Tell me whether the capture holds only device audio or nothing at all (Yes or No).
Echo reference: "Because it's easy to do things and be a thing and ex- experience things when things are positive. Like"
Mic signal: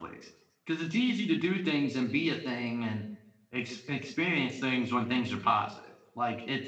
Yes